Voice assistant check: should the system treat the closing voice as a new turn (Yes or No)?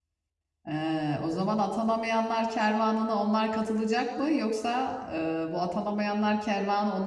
No